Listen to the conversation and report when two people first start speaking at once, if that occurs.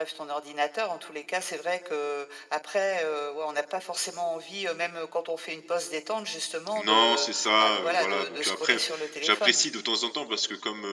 7 s

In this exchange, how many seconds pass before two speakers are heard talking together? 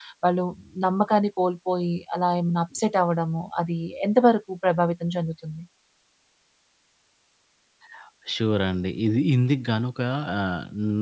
none

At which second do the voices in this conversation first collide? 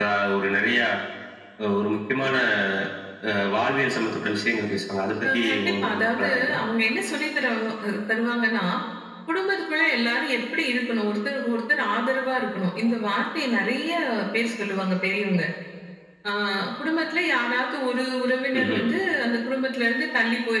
5 s

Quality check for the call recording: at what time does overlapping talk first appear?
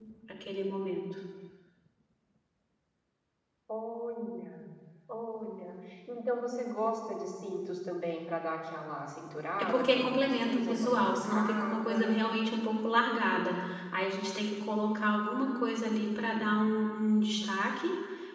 10 s

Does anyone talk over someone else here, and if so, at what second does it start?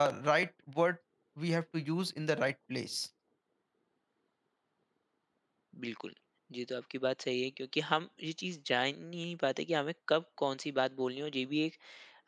none

